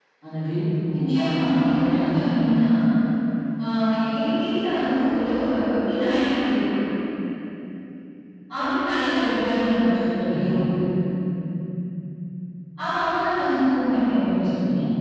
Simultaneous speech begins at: 0.9 s

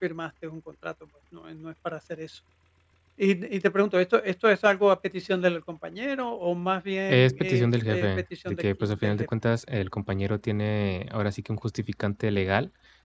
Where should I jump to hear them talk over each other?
7.1 s

